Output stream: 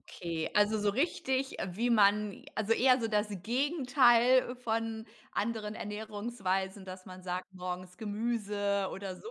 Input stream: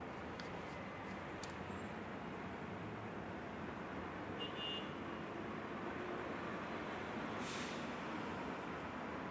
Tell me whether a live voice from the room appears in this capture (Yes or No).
No